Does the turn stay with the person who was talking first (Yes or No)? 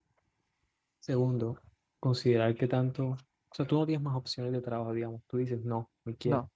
Yes